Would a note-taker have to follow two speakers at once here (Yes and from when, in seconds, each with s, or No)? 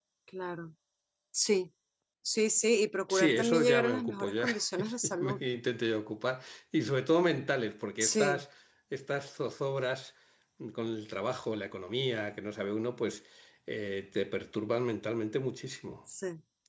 Yes, from 3.1 s